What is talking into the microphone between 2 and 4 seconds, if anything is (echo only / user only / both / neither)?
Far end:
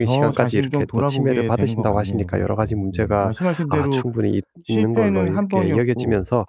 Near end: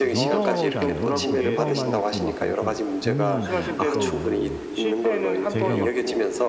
both